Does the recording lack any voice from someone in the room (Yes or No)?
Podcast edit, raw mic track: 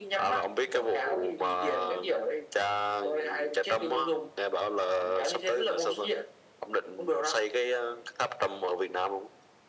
Yes